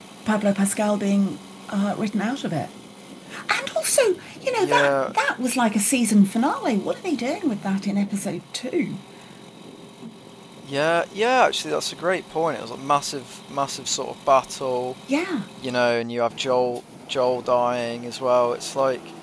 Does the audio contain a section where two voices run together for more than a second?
No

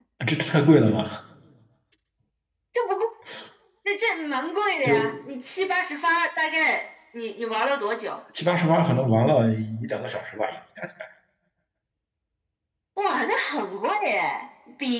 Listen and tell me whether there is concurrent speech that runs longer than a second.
No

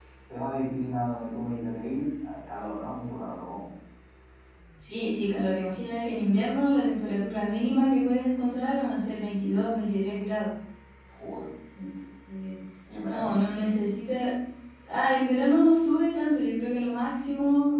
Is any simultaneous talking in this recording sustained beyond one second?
No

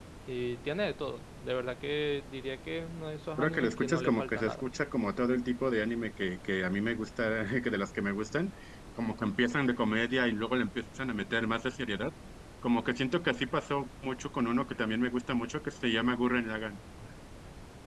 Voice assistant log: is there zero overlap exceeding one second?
No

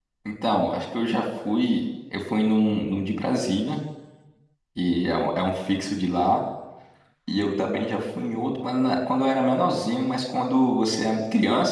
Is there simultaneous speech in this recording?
No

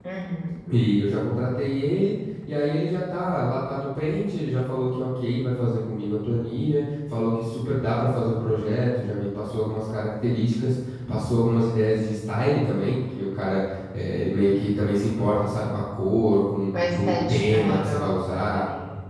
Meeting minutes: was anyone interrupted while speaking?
Yes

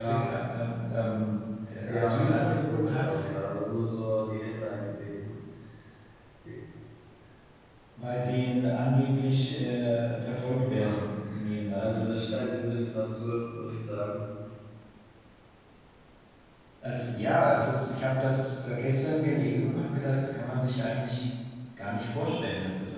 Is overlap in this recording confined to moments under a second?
No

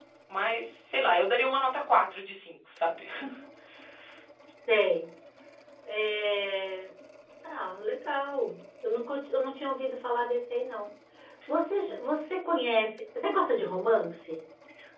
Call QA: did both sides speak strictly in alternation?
Yes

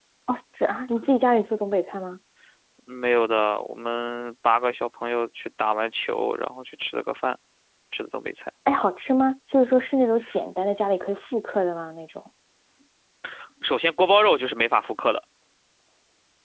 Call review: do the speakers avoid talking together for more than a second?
Yes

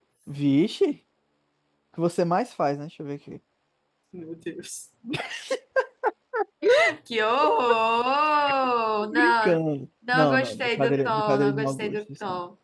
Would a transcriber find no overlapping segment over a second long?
No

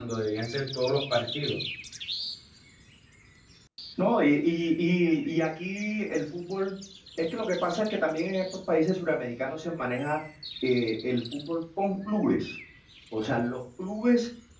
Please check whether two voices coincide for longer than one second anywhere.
No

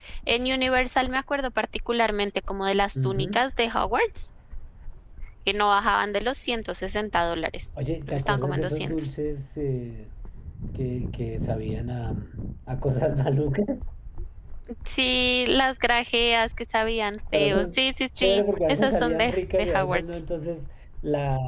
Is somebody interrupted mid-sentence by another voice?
Yes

